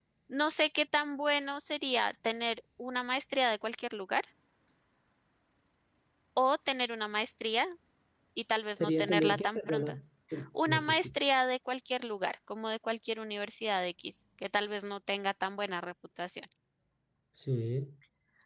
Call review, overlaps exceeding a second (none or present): present